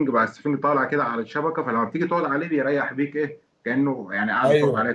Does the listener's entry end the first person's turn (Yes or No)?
Yes